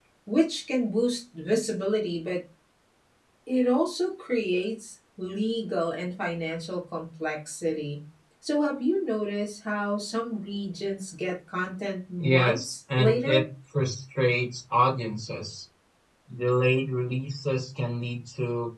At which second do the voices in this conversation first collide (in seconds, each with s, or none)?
12.2 s